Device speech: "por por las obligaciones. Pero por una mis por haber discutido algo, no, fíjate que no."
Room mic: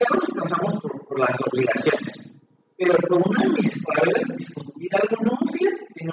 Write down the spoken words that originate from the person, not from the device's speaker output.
none

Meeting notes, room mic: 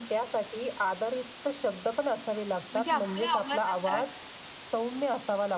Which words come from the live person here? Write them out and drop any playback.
म्हणजे आपल्या आवाजाचा

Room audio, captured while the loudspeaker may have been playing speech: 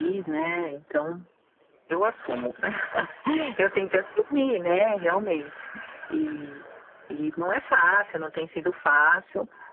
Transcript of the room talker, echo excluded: none

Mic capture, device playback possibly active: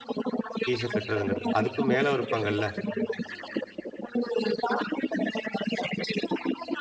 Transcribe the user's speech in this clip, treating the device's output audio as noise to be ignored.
ஃபீஸ கட்டுறதுங்கிறது. அதுக்கும் மேல இருப்பாங்கல்ல,

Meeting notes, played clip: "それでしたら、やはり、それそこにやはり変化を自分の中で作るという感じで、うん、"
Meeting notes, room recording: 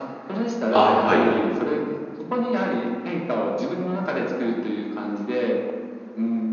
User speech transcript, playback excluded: あ、はい。

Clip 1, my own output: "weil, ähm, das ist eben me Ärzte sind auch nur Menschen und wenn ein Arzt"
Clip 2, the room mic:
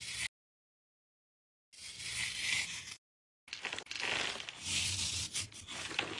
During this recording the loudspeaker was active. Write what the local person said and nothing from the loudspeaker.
none

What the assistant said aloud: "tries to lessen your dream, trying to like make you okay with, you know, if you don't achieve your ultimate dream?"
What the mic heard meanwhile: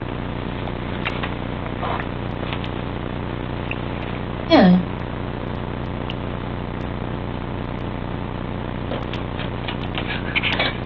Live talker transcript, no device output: Yeah.

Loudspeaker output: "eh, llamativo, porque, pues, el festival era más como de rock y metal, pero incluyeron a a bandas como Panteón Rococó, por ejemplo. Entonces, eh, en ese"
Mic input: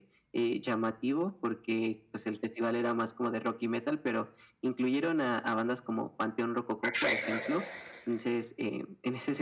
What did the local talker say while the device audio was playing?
Perfecto.

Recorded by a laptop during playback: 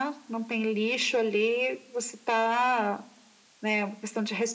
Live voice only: none

